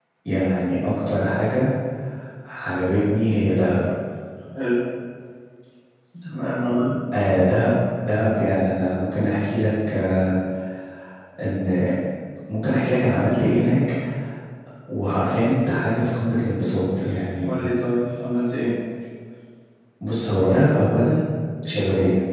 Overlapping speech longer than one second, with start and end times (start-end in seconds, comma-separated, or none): none